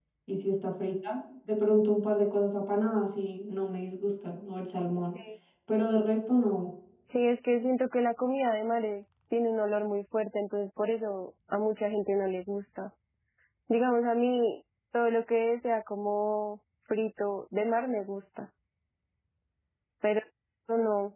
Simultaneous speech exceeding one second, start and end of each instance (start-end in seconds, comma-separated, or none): none